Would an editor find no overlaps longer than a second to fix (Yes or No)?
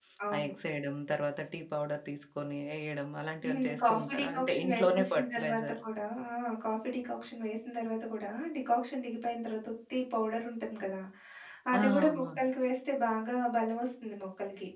No